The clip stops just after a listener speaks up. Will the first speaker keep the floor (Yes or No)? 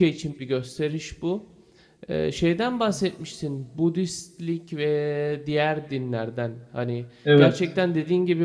Yes